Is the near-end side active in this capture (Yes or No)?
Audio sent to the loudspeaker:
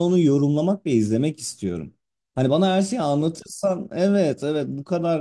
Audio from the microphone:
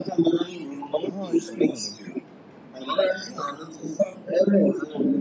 Yes